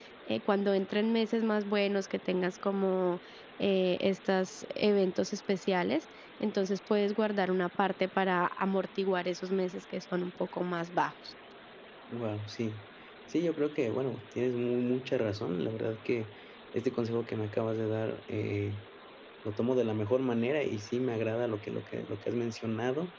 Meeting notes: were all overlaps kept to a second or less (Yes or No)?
Yes